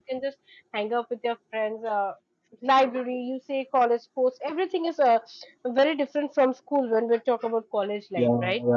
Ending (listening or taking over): taking over